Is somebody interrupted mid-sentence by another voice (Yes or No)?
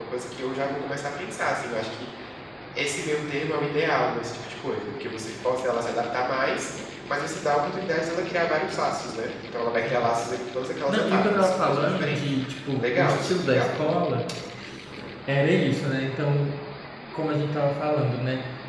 Yes